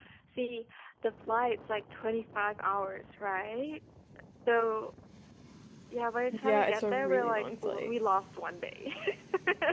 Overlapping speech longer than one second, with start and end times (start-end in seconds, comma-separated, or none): 6.4-7.9